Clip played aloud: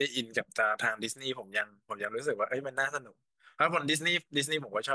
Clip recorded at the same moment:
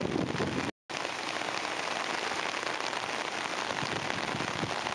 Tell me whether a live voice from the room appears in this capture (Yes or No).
No